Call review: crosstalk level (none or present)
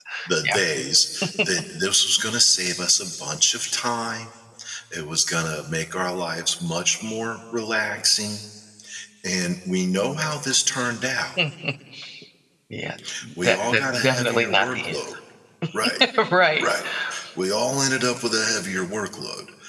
present